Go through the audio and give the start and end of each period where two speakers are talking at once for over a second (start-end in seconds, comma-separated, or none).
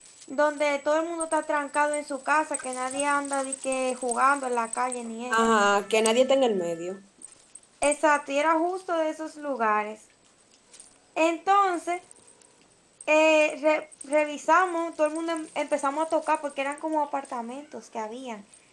none